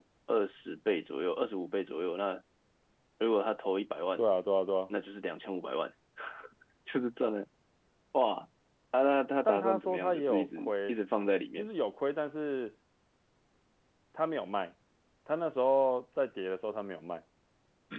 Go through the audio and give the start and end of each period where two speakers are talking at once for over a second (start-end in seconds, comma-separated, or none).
9.4-11.0